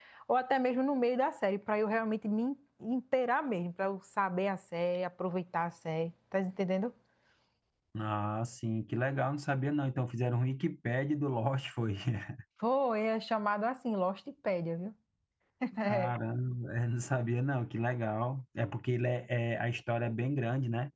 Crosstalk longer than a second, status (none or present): none